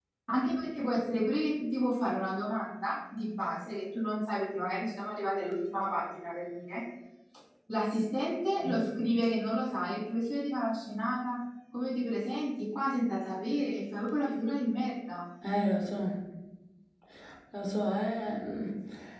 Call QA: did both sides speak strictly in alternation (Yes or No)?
Yes